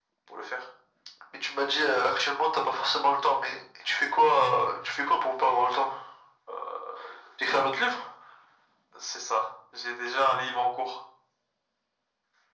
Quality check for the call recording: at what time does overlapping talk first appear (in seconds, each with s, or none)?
none